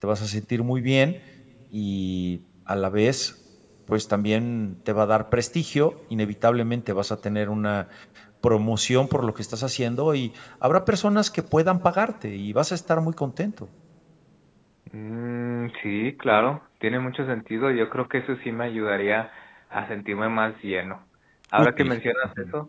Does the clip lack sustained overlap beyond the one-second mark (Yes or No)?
Yes